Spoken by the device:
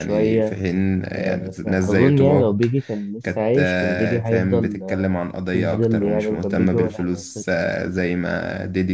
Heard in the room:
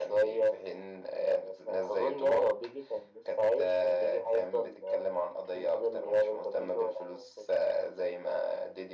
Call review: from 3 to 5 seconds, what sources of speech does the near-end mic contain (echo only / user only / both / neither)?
echo only